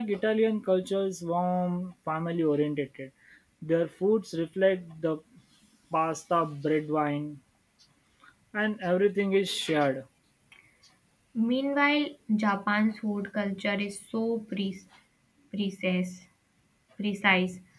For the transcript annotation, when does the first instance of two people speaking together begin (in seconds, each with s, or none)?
none